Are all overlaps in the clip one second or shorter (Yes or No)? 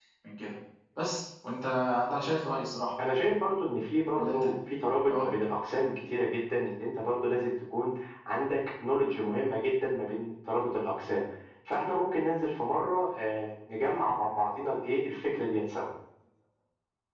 Yes